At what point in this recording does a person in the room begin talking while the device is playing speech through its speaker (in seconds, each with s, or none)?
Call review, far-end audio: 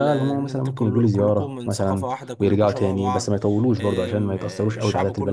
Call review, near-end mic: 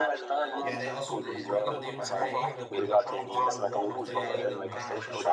0.6 s